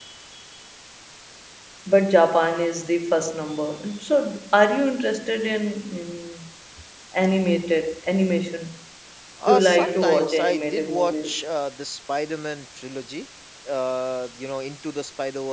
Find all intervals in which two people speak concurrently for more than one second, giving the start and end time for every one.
9.5-11.4

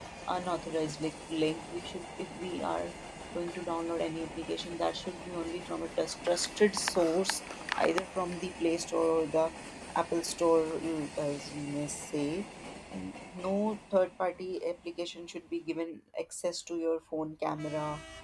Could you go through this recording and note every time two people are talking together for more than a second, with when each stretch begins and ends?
none

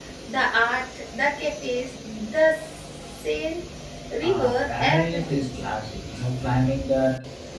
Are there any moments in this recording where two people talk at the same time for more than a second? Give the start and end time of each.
4.2-5.4

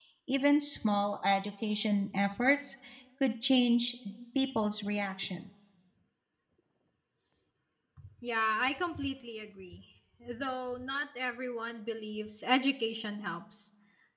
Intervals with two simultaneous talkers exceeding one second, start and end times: none

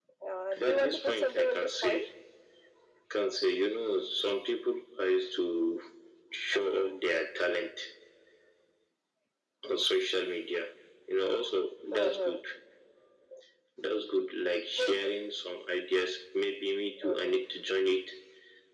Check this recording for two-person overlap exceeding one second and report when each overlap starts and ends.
0.5-2.1

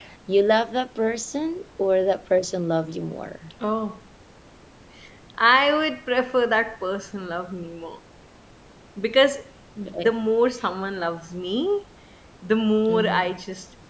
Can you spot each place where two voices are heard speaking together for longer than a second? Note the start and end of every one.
none

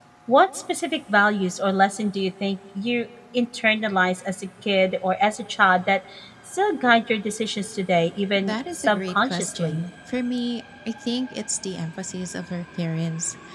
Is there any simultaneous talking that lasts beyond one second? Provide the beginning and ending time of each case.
8.4-9.8

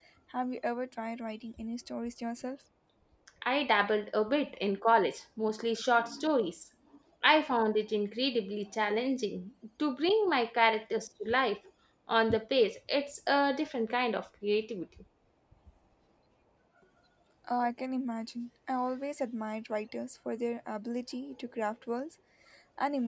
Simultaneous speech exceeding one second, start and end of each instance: none

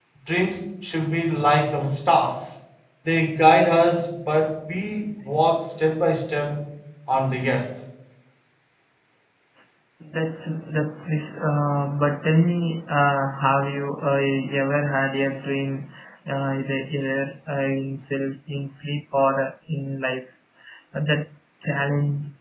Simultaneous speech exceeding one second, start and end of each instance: none

